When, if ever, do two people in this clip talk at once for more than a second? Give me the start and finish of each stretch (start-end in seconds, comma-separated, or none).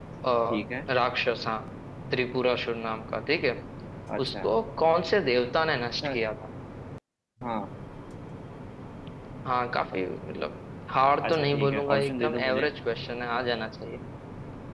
11.3-12.7